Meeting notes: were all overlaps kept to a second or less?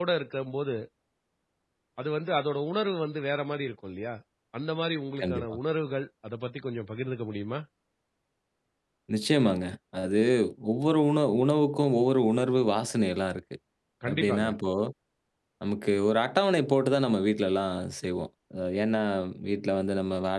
Yes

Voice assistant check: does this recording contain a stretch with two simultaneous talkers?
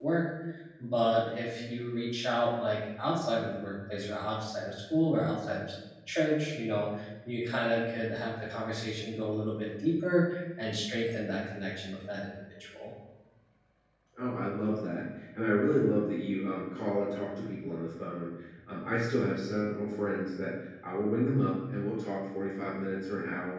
No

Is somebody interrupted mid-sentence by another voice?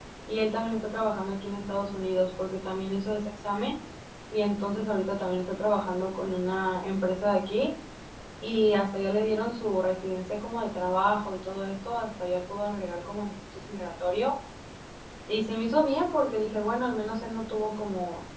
No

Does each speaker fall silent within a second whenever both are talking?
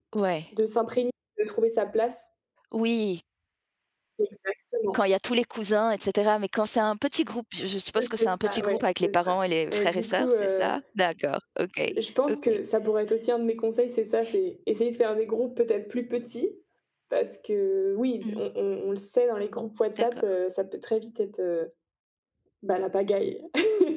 No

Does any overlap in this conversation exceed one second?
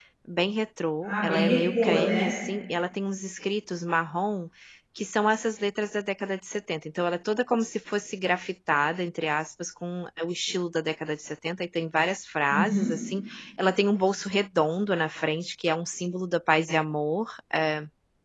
Yes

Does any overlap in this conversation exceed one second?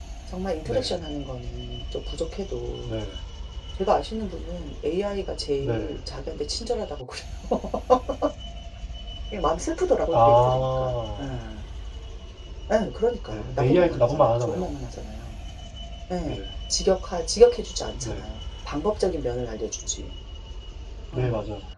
Yes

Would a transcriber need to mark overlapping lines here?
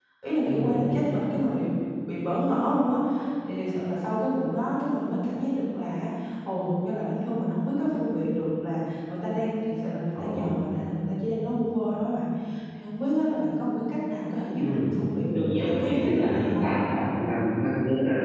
Yes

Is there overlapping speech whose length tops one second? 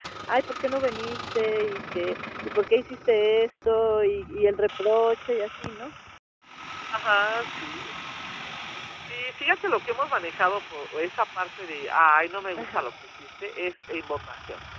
No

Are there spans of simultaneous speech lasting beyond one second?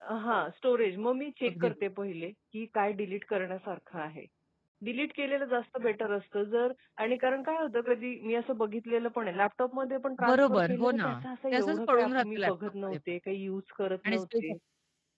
Yes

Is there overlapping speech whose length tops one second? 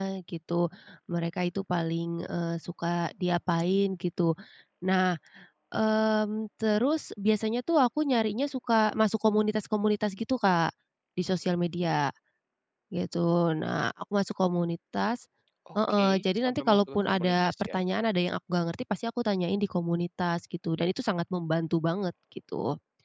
Yes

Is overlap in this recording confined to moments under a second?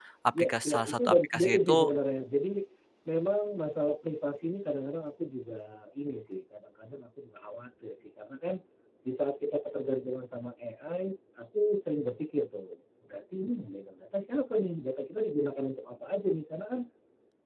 No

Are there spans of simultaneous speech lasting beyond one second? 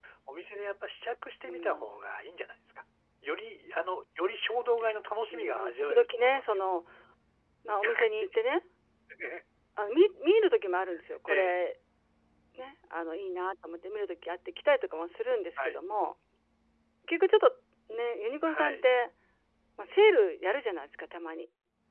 Yes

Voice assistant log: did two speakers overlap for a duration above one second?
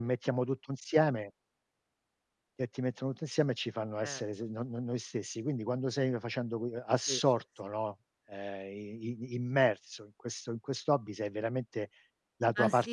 No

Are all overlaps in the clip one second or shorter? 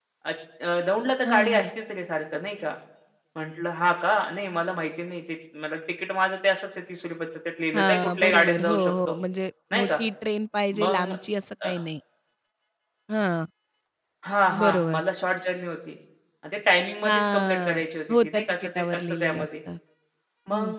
No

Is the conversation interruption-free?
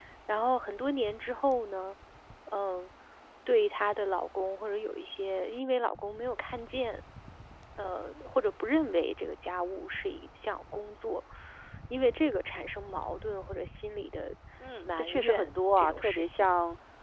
No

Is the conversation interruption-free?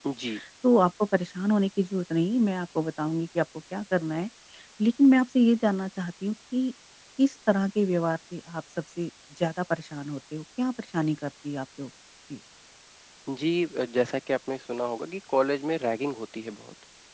Yes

